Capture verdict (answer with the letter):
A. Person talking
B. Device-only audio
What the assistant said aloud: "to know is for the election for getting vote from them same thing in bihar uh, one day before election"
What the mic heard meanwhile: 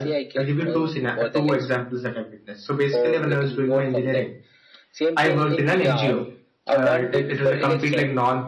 A